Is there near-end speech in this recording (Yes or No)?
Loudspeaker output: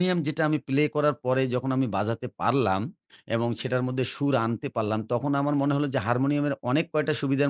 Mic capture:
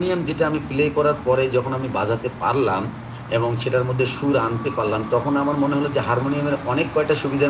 No